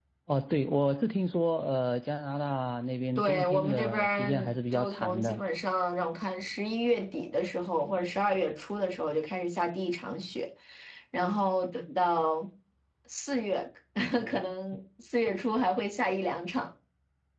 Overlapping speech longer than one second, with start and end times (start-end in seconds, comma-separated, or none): 3.2-5.4